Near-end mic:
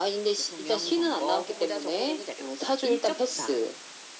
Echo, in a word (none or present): present